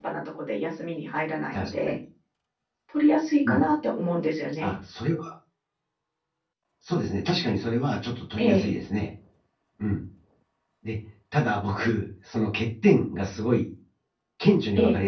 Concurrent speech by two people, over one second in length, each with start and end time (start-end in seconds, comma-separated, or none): none